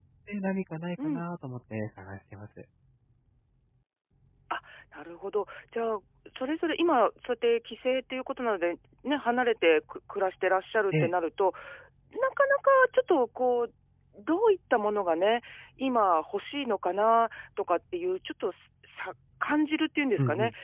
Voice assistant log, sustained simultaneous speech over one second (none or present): none